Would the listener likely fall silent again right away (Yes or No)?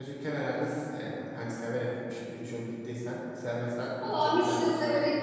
No